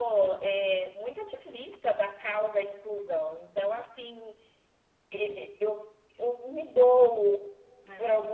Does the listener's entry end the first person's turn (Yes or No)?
No